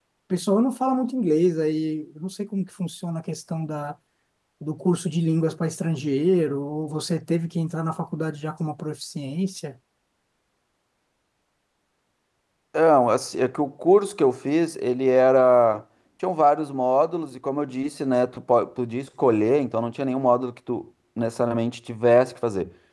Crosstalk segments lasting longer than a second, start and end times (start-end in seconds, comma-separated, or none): none